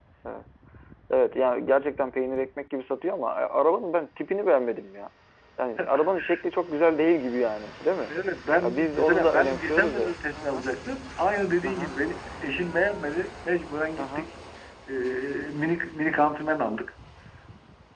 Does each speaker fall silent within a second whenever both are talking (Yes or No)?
No